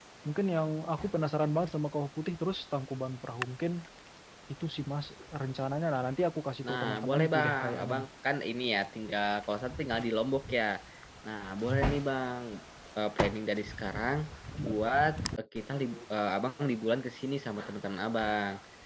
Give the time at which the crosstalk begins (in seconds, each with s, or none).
6.6 s